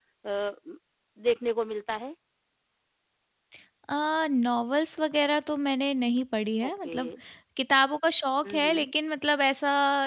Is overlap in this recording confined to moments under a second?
Yes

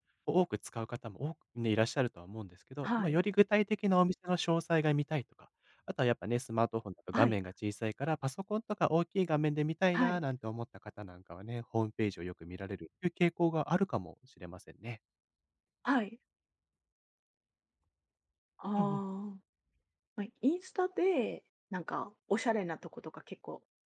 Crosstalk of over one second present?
No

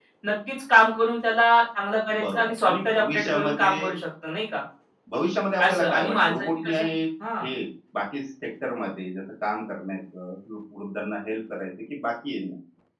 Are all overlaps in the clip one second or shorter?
No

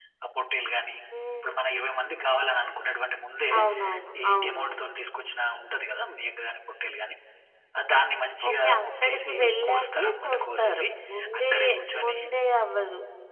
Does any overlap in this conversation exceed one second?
Yes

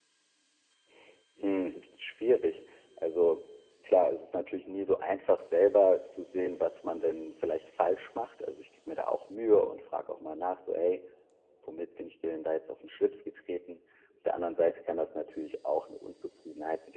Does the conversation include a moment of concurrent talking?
No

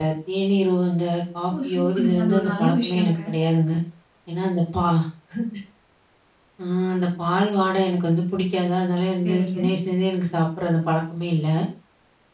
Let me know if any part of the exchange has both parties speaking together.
Yes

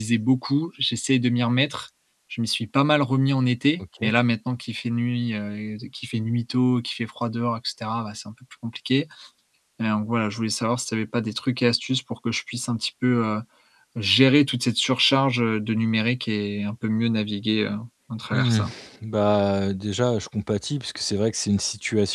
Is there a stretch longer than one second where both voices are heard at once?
No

